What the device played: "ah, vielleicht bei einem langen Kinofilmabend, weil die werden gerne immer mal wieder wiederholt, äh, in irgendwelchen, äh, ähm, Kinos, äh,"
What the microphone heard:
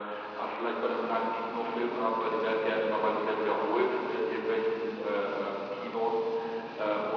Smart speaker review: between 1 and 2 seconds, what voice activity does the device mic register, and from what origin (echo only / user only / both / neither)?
echo only